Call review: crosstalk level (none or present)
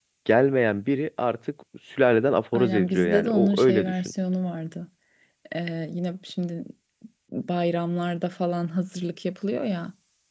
present